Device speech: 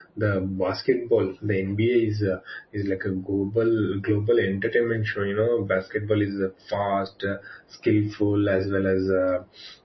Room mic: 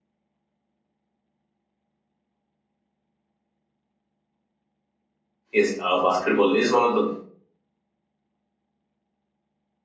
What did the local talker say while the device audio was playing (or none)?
yes, uh, basketball is one of the